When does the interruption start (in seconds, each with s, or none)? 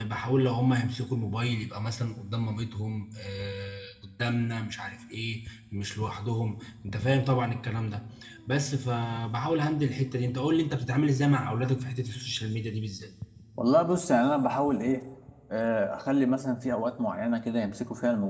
none